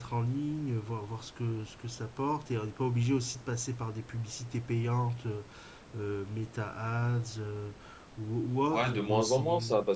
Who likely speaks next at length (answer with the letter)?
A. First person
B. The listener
B